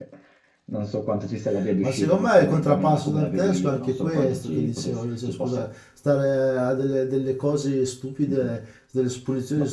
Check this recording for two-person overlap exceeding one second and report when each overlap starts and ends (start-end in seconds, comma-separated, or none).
1.8-5.6